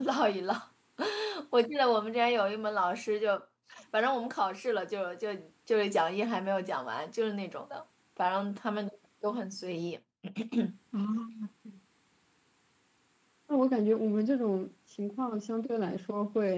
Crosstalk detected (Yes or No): No